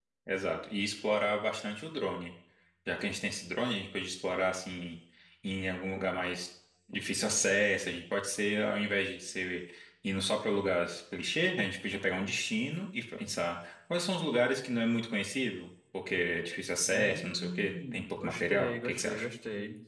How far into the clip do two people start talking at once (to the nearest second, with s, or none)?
17 s